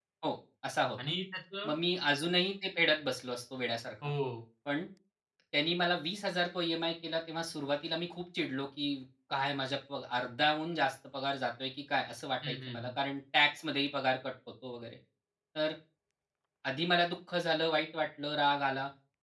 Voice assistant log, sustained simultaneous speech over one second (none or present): none